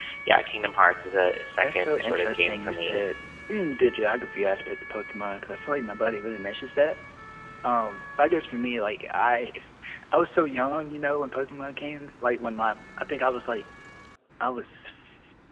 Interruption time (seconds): 1.6 s

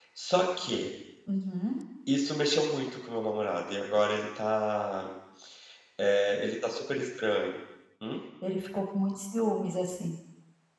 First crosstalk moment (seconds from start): none

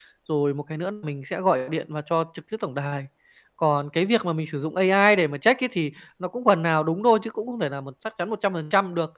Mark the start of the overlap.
none

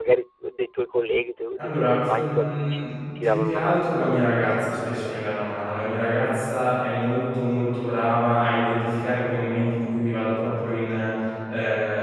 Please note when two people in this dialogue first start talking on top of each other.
1.6 s

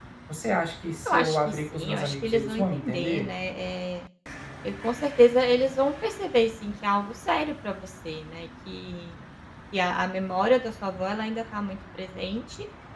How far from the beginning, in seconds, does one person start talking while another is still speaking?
1.1 s

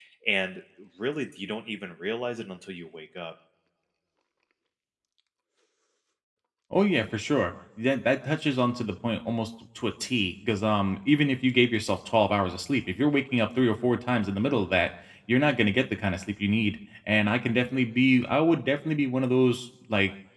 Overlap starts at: none

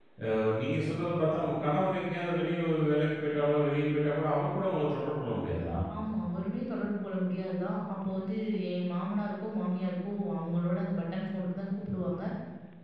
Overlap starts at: none

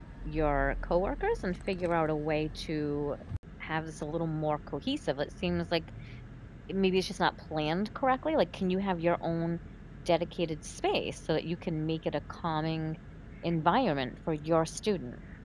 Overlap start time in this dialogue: none

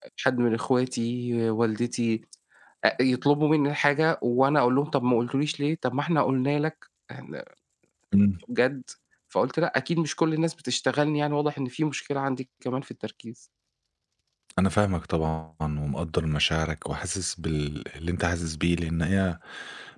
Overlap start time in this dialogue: none

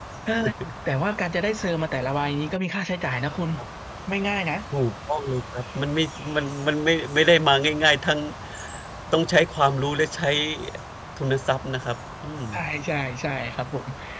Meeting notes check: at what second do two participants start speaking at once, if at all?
none

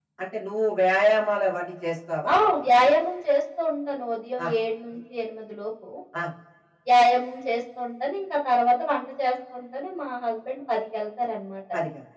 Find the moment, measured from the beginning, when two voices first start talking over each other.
none

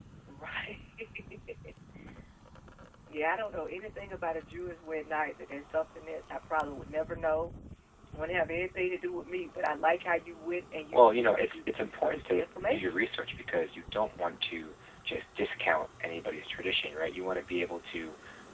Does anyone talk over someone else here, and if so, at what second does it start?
10.9 s

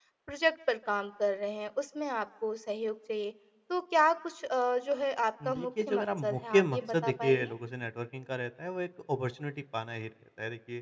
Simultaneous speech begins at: 5.4 s

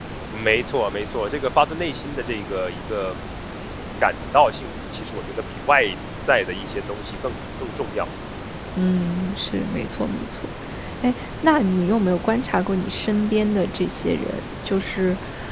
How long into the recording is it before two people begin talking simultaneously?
none

